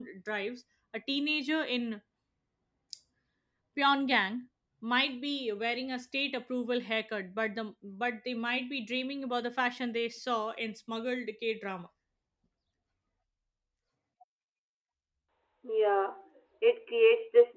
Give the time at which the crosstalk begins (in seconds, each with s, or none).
none